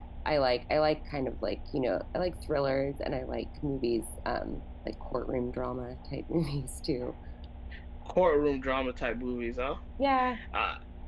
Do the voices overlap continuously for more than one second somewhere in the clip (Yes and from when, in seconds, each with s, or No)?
No